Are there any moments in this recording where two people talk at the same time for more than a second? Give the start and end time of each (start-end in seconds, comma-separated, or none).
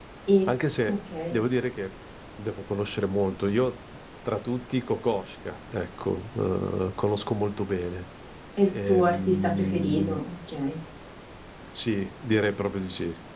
8.9-10.2